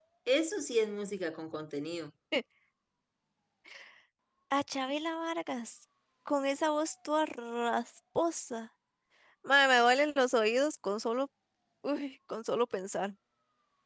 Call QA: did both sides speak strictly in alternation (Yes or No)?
Yes